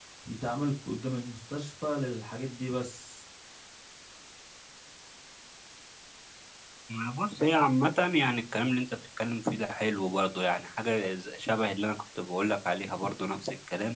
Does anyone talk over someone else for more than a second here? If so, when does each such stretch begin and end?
none

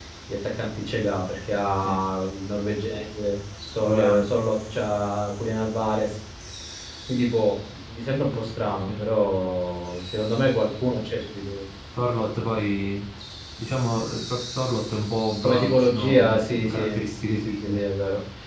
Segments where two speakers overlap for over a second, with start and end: 15.4-16.9

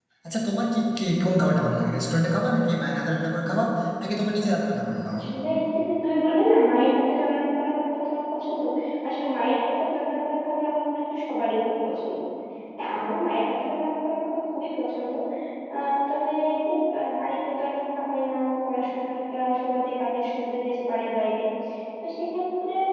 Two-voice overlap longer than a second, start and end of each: none

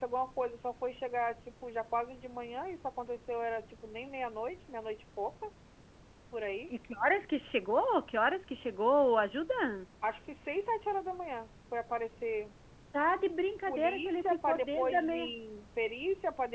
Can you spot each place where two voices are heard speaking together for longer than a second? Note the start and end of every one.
13.7-15.3

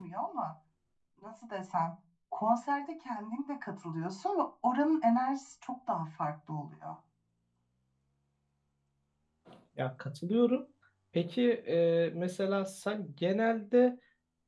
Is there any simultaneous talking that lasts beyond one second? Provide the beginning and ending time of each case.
none

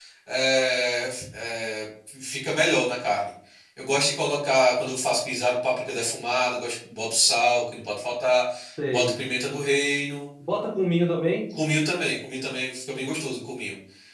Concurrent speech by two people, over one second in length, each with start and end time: none

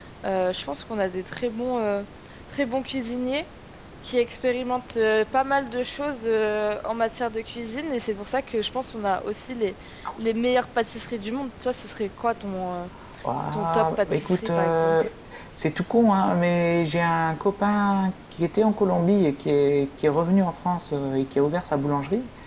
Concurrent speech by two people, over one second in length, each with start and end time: 13.5-15.0

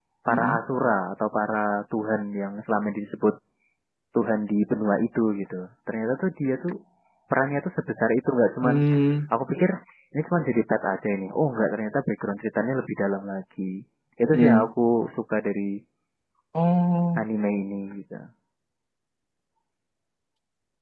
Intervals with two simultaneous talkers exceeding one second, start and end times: none

